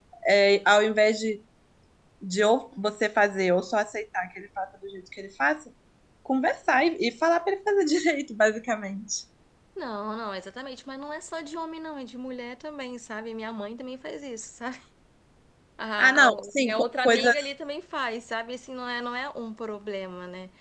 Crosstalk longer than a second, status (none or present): present